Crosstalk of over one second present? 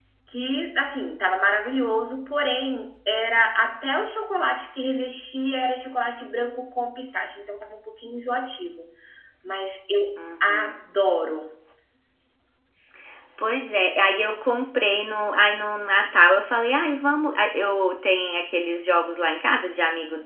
No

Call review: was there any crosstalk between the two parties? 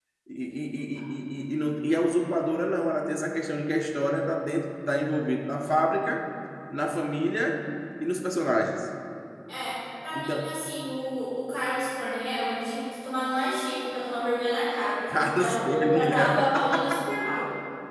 Yes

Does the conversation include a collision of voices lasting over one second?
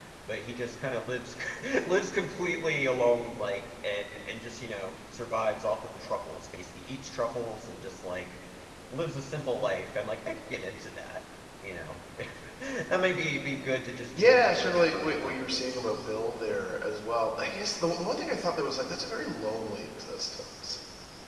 Yes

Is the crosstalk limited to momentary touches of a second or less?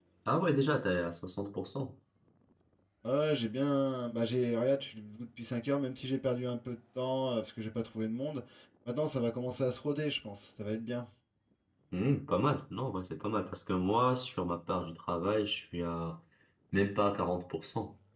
Yes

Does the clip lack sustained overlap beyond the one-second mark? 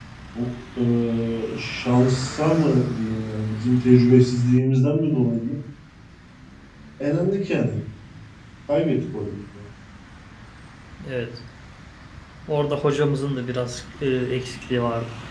Yes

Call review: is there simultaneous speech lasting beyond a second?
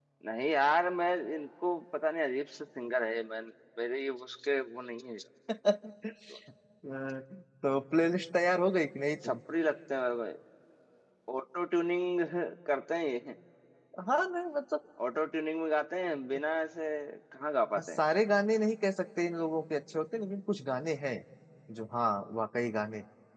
No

